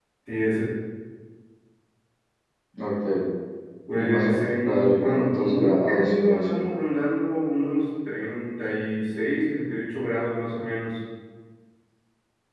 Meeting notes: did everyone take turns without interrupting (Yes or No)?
No